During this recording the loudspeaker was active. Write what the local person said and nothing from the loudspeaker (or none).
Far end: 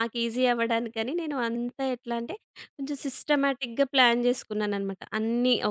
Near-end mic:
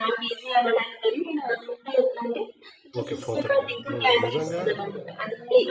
ఓకే. 4:30. హ్మ్. నిజంగా